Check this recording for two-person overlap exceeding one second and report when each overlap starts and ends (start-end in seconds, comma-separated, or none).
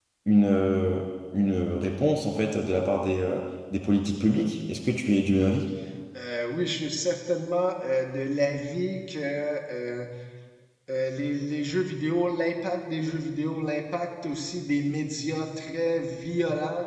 none